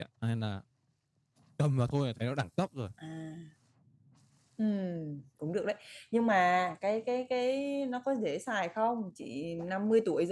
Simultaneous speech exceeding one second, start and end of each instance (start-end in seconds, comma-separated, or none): none